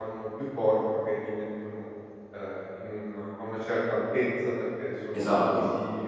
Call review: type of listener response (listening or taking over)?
listening